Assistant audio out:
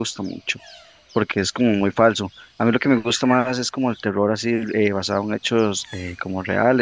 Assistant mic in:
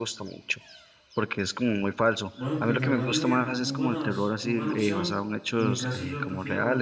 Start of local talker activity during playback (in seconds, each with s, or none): 2.3 s